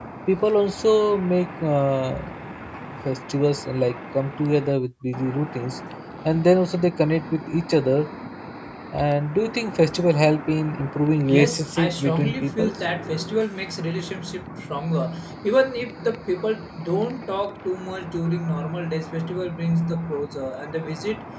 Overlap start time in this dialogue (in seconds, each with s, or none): 11.3 s